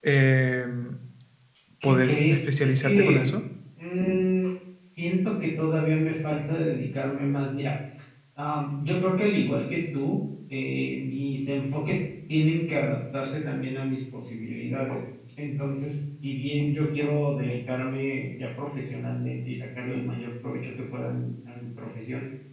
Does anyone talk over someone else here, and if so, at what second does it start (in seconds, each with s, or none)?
1.8 s